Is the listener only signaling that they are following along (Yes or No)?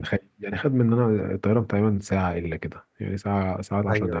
No